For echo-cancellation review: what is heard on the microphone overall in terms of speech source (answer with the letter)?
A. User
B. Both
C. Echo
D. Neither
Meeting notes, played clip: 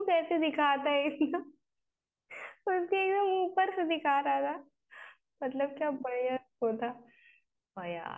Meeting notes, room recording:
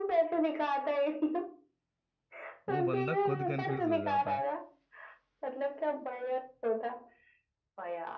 B